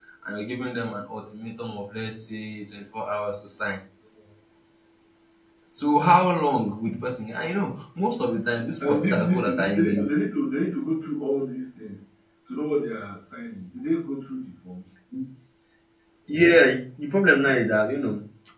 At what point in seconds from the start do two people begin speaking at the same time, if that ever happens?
9 s

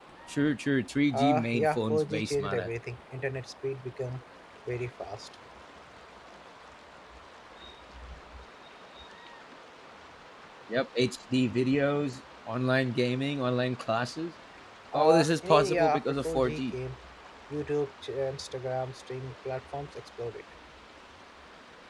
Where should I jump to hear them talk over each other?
1 s

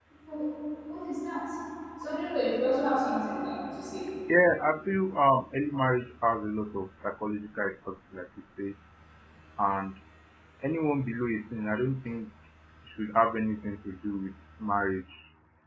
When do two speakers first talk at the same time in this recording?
none

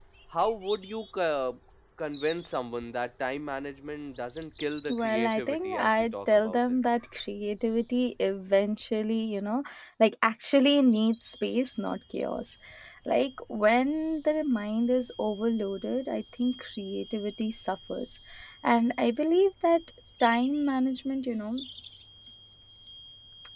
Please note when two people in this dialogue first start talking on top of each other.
5 s

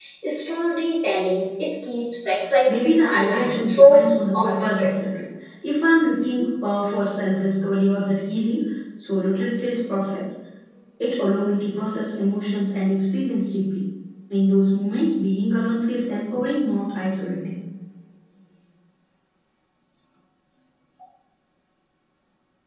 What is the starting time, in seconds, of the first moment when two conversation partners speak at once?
3 s

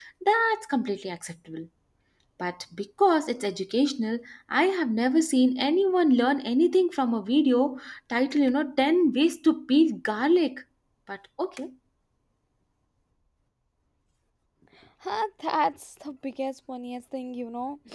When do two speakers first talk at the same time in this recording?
none

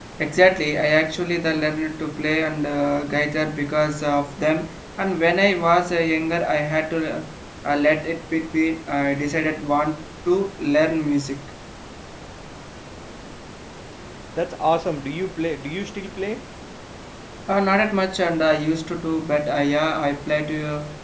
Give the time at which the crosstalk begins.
none

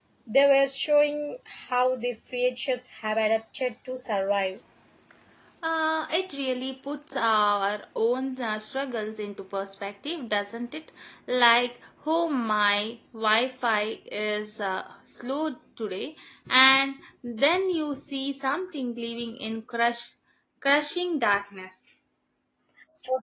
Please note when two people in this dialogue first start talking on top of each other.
none

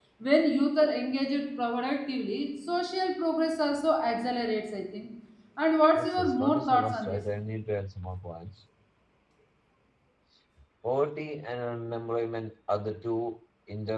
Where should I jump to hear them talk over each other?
6 s

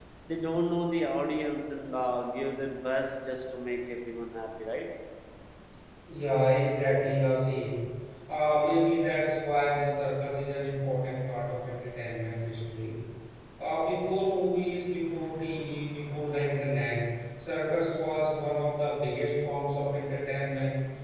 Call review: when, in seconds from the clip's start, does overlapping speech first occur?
none

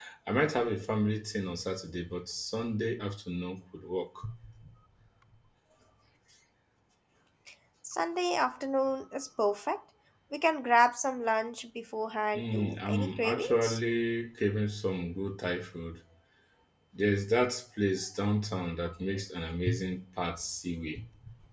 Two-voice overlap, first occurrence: 12 s

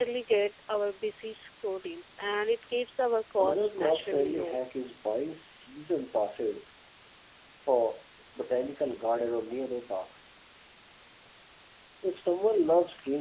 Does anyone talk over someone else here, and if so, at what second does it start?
3 s

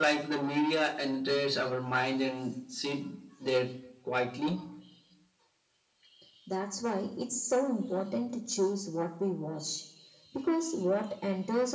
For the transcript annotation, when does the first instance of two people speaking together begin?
none

